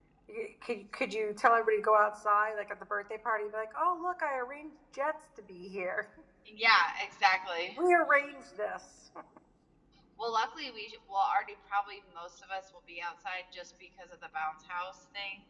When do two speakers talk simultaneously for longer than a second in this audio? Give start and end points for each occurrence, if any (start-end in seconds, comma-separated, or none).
none